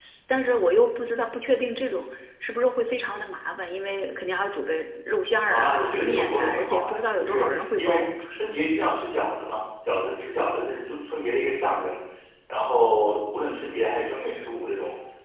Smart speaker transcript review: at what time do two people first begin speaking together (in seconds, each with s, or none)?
5.5 s